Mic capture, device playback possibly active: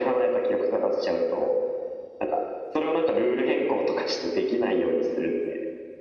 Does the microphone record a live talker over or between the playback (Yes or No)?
No